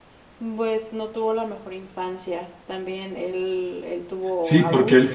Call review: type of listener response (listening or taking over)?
taking over